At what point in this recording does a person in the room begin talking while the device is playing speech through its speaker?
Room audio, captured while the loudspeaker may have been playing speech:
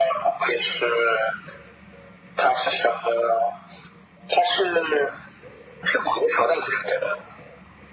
none

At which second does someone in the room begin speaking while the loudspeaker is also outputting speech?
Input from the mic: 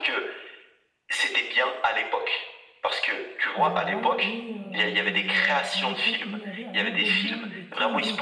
4 s

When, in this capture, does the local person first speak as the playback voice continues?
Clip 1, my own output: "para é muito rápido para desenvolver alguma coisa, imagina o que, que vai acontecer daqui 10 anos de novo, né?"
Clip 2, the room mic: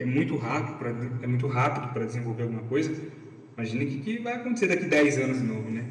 none

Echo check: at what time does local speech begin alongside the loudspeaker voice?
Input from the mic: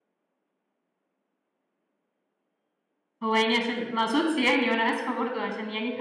3 s

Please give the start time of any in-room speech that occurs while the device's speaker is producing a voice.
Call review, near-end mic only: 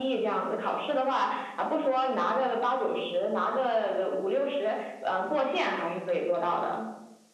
none

